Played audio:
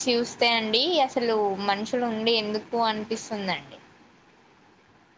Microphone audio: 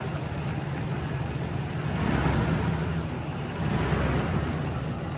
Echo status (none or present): none